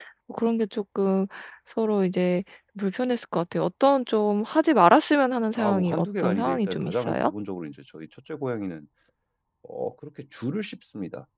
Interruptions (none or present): present